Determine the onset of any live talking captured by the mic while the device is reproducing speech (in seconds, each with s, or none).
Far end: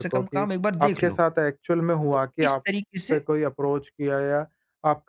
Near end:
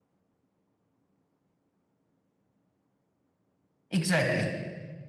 3.9 s